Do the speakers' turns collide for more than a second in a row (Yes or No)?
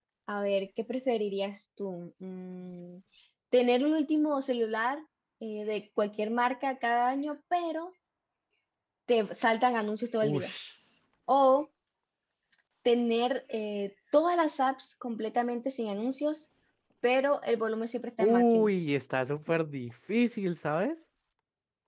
No